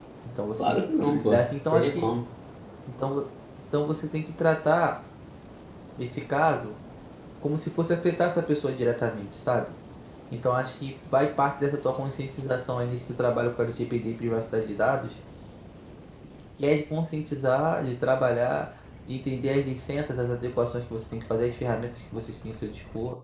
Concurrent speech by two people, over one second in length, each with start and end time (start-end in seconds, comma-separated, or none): 0.7-2.0